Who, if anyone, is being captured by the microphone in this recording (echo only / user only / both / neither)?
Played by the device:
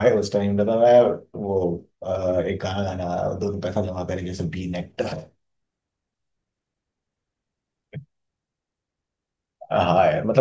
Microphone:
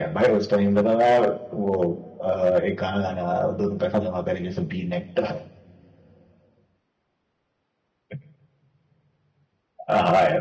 echo only